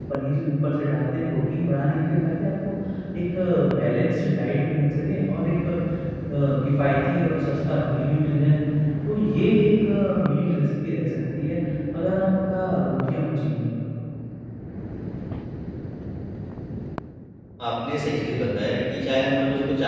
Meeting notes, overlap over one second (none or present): none